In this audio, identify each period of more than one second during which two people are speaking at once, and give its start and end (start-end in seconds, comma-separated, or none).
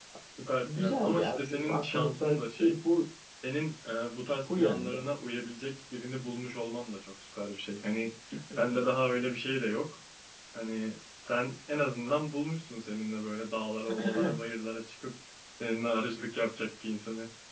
0.7-2.8